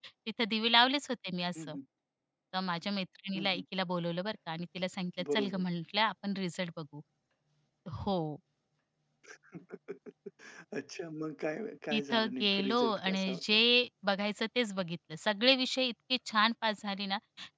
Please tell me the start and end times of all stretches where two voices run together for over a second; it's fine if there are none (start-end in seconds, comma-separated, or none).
11.9-13.6